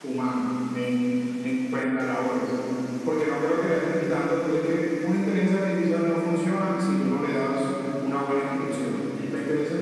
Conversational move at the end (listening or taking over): listening